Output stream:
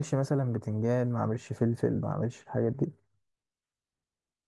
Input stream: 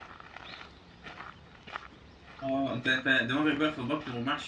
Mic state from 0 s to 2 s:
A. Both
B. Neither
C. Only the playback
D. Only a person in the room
B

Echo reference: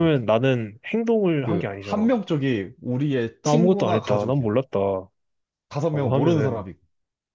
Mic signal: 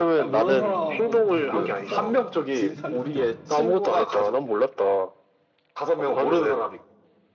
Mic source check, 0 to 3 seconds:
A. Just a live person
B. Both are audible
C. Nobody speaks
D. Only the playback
B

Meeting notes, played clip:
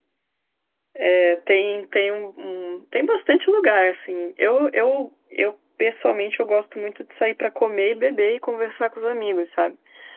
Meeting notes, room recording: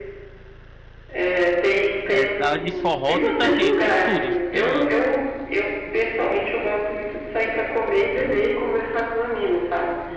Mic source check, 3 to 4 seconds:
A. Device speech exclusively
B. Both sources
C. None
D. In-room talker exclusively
B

